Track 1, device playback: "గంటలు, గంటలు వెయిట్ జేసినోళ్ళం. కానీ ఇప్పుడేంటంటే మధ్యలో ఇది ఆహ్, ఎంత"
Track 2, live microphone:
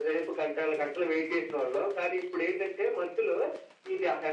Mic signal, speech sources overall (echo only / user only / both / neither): echo only